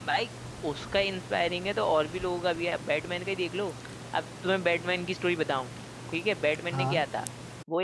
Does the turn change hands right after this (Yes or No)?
No